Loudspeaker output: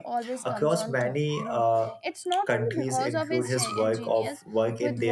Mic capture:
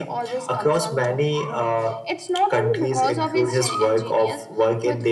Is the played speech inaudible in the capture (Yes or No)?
No